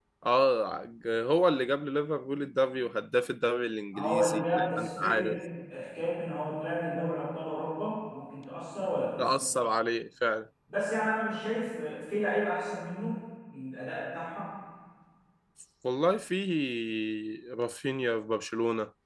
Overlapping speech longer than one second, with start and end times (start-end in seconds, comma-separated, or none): 4.0-5.4